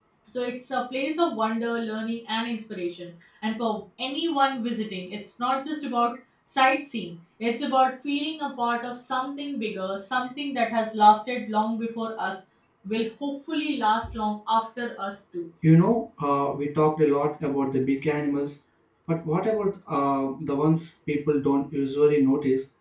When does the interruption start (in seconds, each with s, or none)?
none